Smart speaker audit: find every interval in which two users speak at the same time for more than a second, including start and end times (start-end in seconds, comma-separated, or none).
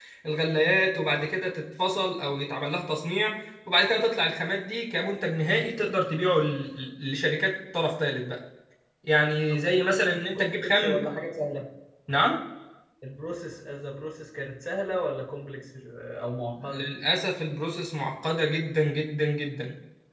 9.5-11.0